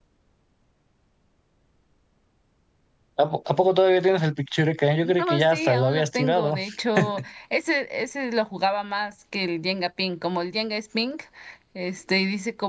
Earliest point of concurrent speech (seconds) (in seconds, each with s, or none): 5.0 s